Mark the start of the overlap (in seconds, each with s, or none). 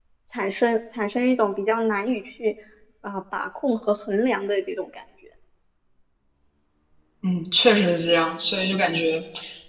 none